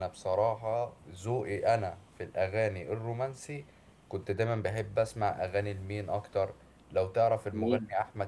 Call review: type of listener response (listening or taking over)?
listening